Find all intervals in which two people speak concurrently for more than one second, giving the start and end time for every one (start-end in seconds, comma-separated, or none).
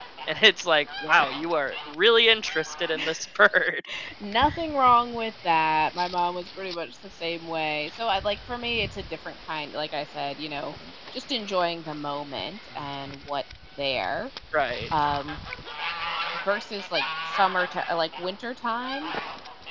none